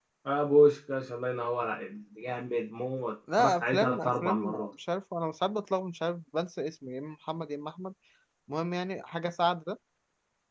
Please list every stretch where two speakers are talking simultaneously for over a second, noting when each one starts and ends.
3.4-4.7

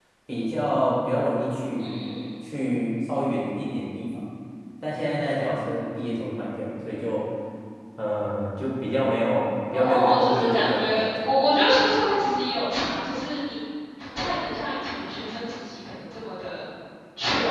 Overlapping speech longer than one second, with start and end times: 9.7-11.3

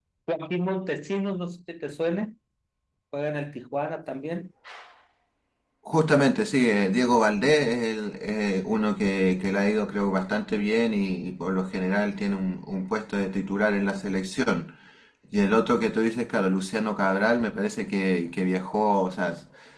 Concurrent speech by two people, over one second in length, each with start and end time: none

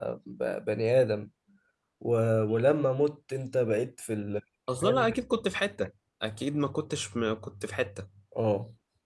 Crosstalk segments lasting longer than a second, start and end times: none

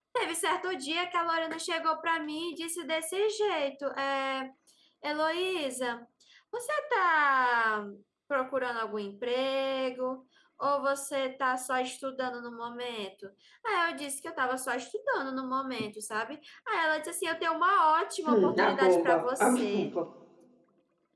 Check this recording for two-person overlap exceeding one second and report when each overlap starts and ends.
18.2-19.9

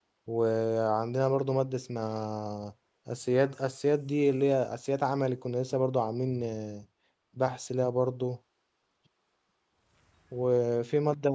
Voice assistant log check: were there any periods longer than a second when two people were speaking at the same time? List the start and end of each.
none

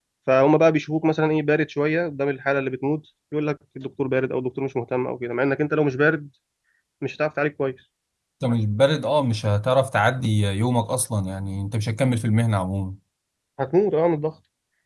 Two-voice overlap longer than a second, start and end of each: none

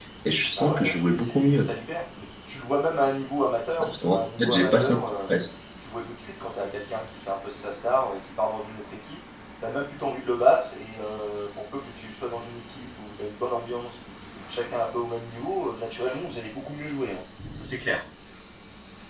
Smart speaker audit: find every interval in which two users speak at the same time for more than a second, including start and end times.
0.5-1.7, 3.8-5.0

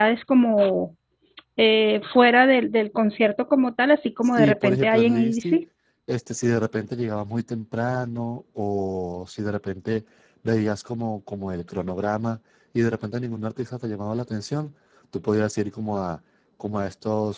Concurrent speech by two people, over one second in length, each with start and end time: 4.2-5.6

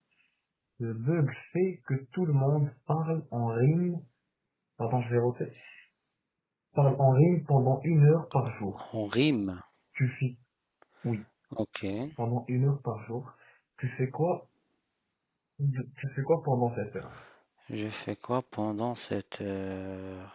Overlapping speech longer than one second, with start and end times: none

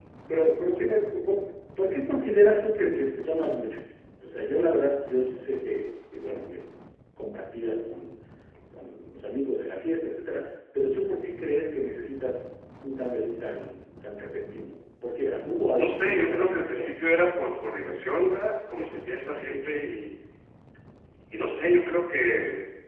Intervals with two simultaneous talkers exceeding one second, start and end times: 15.8-17.0

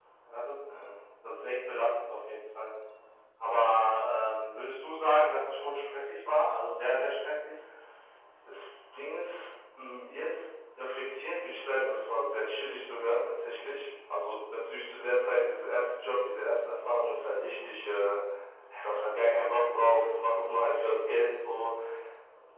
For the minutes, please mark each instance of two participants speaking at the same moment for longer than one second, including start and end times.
none

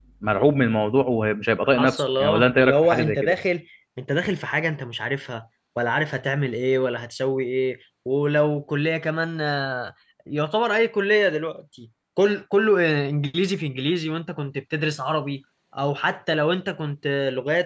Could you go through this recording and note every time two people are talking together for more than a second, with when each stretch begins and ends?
1.6-3.3

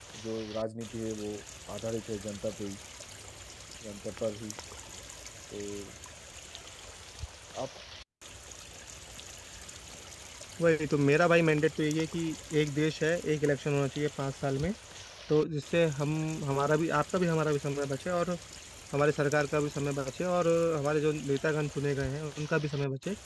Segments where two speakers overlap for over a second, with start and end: none

